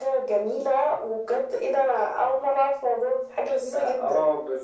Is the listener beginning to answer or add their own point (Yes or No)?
Yes